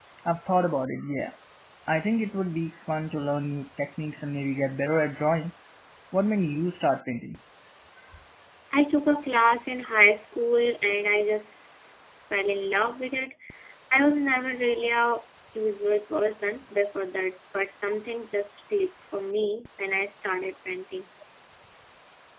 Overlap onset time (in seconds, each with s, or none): none